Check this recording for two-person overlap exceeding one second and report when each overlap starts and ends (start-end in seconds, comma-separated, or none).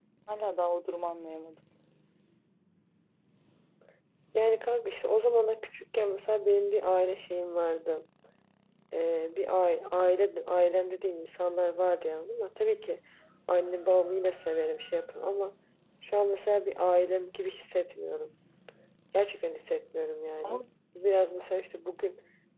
none